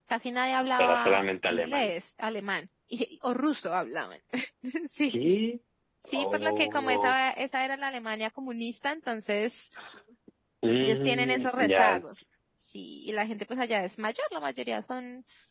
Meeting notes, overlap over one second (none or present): present